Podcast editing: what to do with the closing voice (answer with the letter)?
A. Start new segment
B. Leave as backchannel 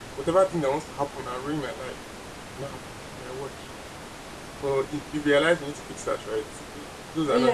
A